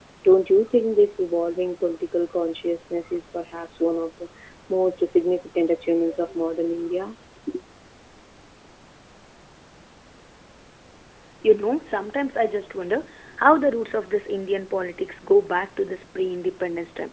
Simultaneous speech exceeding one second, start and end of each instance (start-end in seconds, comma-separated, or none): none